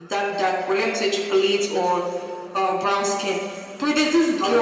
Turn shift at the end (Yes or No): No